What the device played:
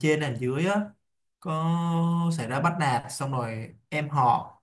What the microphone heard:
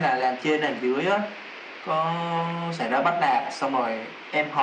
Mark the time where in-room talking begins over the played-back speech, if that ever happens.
none

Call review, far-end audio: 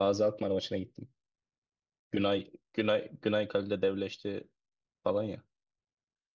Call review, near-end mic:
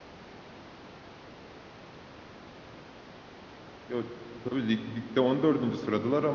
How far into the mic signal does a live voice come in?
3.9 s

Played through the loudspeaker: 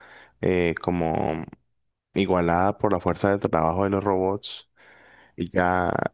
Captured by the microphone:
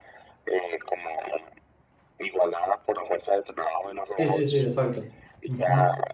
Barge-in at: 4.2 s

